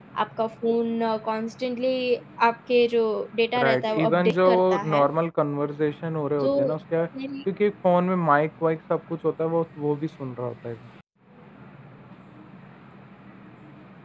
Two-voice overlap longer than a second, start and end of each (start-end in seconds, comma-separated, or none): 3.5-5.1